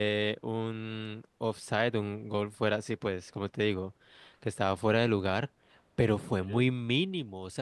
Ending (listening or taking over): listening